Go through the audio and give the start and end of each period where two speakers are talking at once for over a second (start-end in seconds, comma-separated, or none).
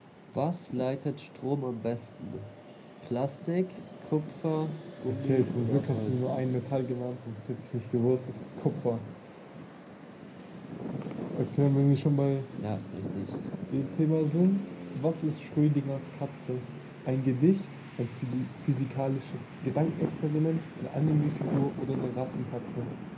5.1-6.3